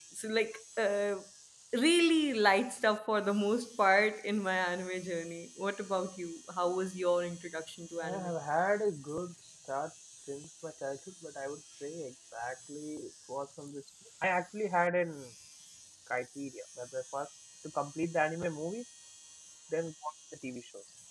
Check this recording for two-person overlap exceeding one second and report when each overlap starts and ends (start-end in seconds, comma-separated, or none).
none